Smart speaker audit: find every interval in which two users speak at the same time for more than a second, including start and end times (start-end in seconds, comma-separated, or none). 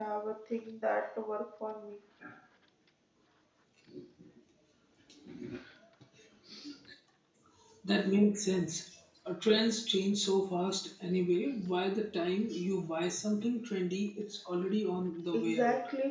none